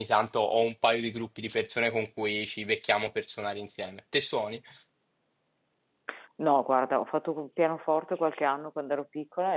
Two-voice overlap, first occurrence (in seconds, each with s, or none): none